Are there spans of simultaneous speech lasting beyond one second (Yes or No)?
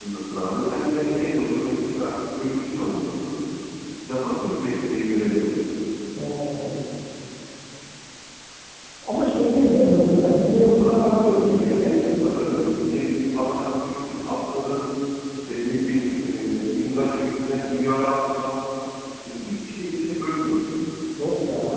Yes